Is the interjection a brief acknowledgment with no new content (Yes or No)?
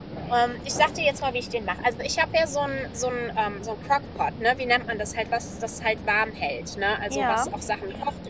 Yes